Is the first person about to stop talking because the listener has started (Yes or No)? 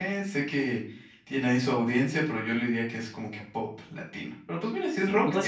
Yes